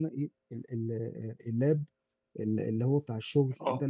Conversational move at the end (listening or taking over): listening